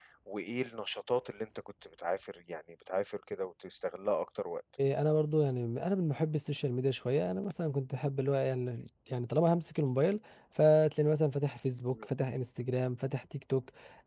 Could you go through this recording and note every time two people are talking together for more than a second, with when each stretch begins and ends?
none

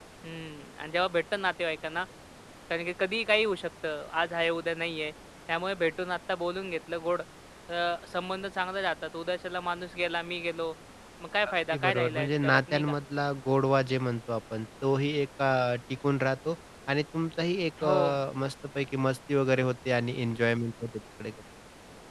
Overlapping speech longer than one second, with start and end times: 11.7-13.0

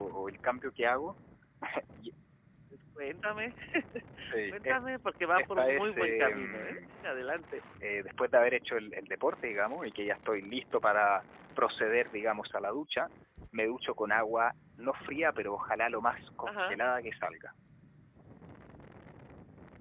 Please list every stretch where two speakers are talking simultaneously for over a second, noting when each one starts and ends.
5.3-6.8

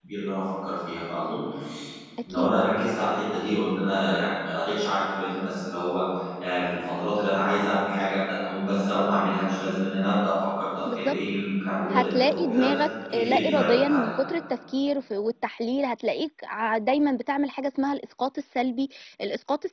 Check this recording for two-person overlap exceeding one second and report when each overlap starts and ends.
11.9-14.1

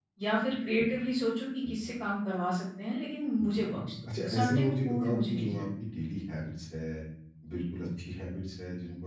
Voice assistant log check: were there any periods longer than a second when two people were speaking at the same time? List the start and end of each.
4.2-5.6

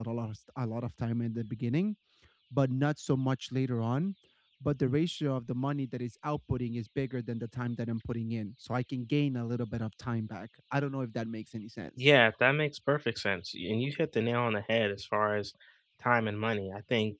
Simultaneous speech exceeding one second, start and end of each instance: none

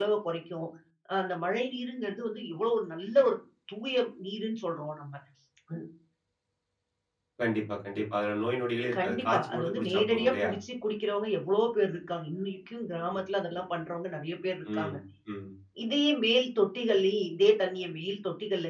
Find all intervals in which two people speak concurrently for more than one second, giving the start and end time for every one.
9.0-10.5

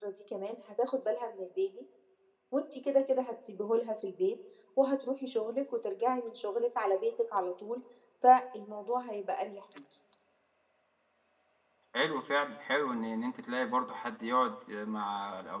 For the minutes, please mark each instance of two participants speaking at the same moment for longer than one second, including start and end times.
none

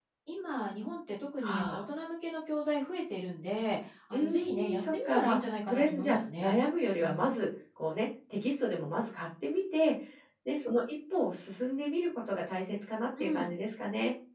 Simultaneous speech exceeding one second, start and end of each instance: 4.1-6.5

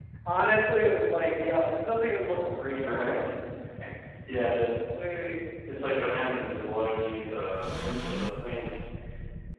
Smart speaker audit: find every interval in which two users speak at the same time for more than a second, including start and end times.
none

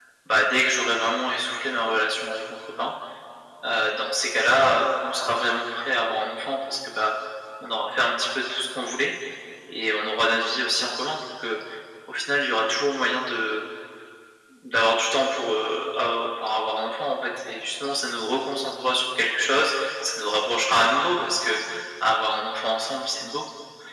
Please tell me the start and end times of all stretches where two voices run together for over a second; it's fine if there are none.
none

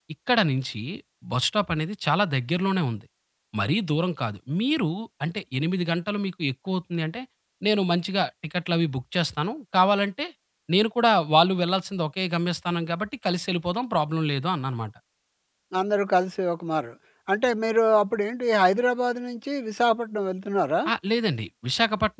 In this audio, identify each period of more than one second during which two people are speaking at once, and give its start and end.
none

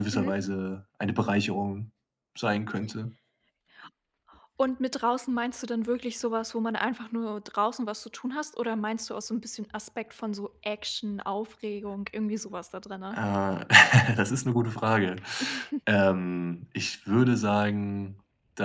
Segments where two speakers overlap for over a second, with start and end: none

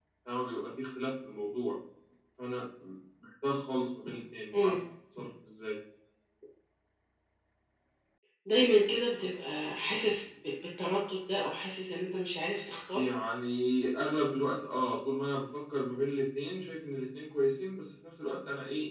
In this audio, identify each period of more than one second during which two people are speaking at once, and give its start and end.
none

